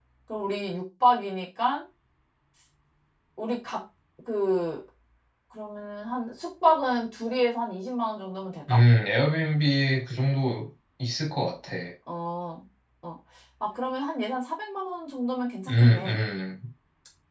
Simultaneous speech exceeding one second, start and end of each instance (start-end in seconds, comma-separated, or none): none